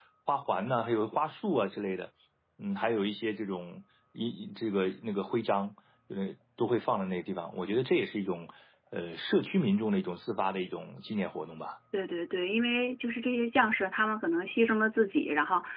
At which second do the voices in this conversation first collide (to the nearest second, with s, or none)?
none